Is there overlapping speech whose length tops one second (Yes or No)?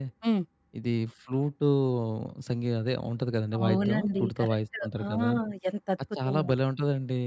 Yes